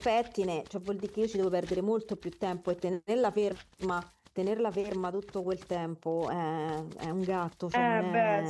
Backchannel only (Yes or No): No